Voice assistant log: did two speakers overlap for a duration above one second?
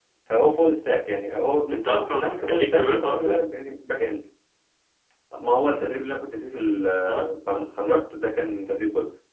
Yes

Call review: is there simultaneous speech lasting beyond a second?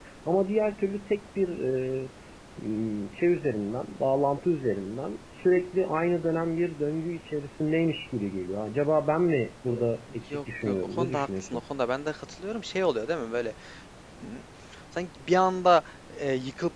Yes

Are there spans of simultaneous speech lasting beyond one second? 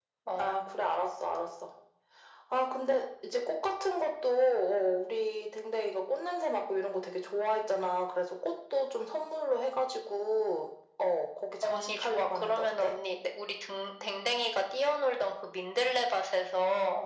Yes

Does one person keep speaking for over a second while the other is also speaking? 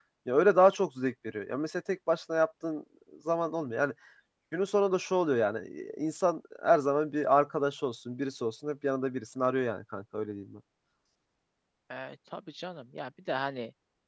No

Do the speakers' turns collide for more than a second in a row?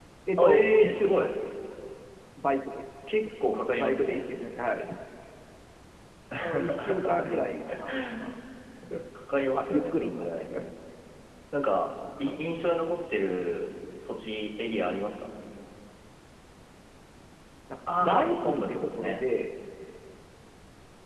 Yes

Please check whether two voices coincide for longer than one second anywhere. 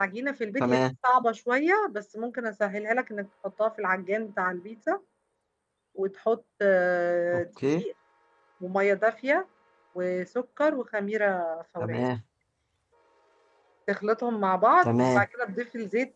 No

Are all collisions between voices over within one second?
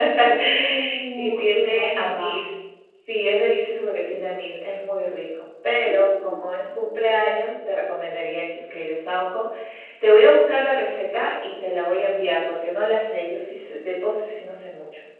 No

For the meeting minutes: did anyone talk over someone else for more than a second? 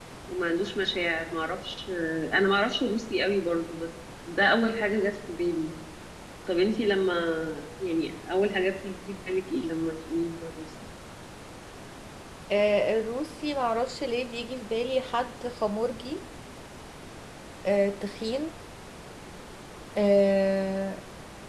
No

